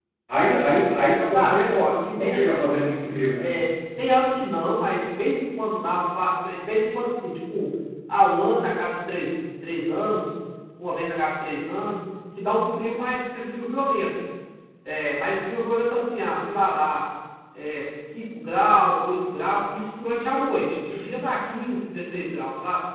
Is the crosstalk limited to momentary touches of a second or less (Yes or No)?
No